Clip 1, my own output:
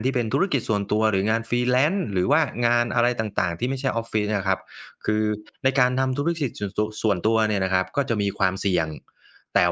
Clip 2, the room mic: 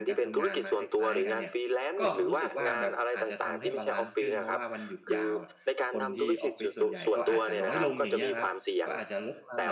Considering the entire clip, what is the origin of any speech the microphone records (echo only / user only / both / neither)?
both